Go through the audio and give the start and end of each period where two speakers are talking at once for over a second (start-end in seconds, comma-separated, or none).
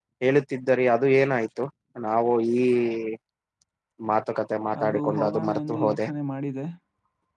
4.8-6.1